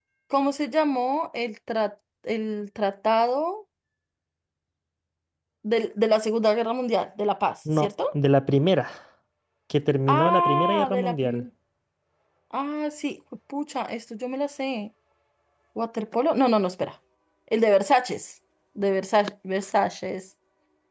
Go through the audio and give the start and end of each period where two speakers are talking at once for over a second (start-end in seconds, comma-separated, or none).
10.1-11.4